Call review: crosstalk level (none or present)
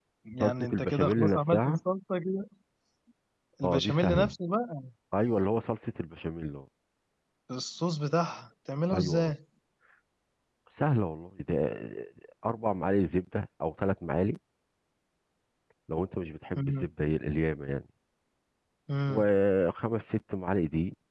present